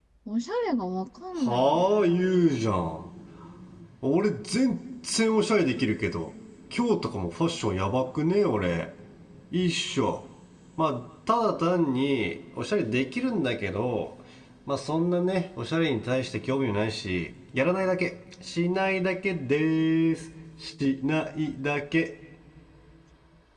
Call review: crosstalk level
present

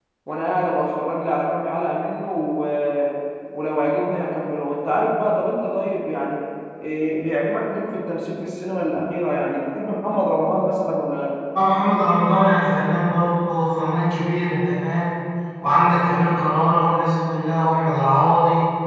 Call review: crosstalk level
none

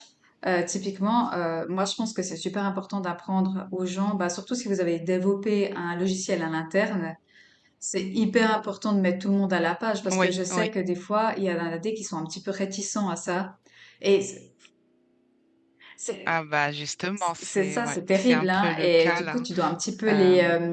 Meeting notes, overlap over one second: present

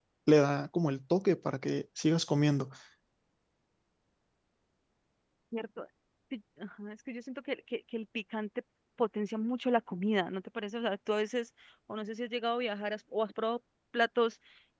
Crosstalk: none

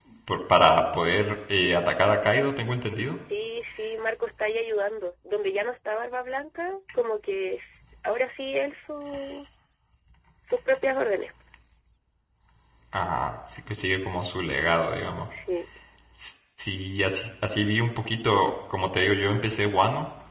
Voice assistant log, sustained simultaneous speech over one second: none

